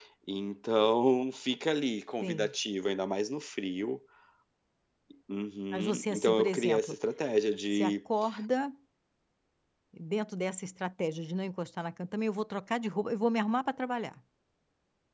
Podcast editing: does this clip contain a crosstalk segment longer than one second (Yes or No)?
Yes